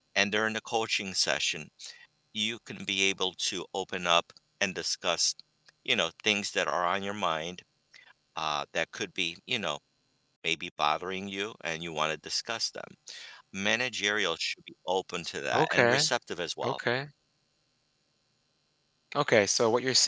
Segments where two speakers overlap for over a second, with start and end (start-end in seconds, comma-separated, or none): none